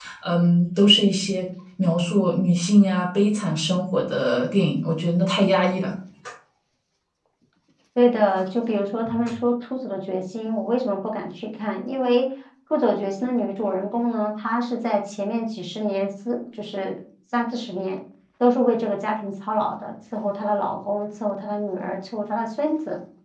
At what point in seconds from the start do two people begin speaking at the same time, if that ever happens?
none

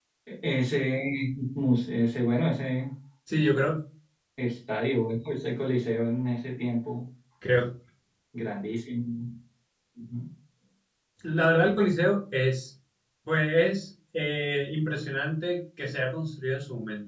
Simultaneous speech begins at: none

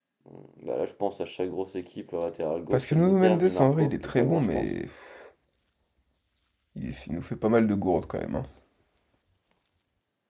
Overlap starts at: 2.7 s

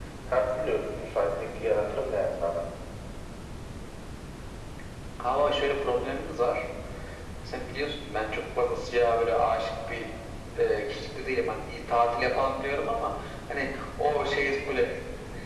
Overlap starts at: none

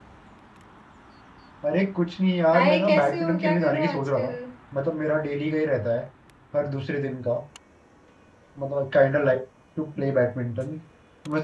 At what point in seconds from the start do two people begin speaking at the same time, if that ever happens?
2.5 s

